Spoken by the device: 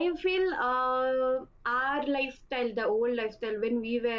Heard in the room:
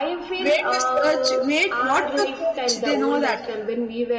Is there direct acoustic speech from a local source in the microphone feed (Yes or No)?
Yes